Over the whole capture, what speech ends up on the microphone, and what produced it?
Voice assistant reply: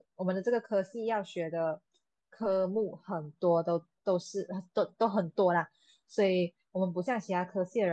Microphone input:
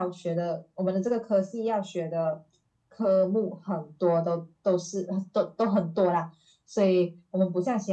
echo only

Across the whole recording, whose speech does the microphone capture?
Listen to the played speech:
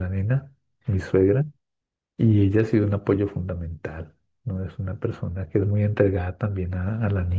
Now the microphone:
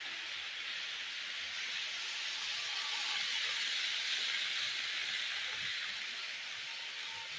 neither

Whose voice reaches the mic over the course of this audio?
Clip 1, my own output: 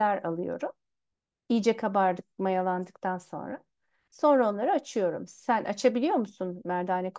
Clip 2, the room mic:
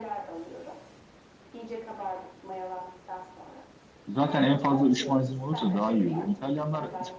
both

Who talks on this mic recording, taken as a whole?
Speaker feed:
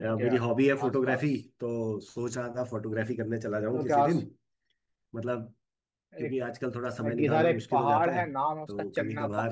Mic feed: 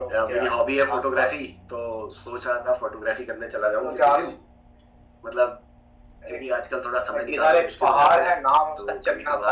echo only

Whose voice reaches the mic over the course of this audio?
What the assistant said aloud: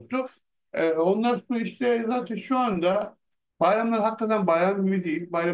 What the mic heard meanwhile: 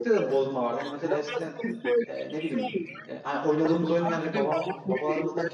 both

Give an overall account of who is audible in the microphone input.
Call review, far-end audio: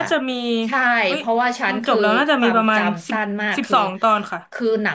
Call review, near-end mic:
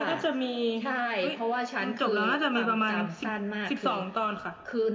echo only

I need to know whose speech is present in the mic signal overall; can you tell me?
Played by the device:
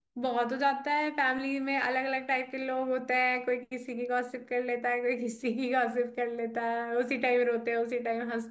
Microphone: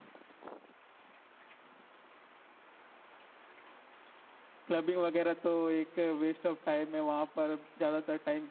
user only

